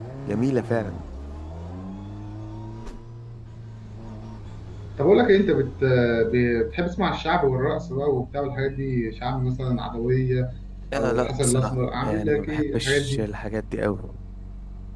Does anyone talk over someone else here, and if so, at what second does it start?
11 s

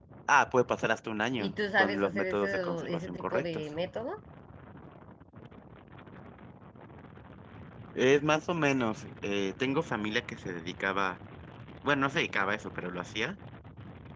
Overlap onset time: 1 s

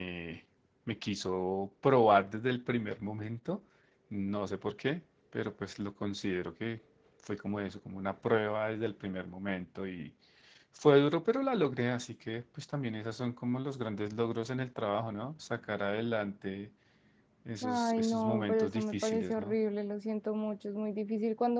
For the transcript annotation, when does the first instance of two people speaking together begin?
18 s

